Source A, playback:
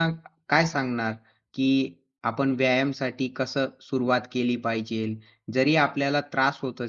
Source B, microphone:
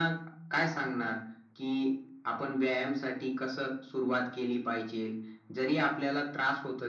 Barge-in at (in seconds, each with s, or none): none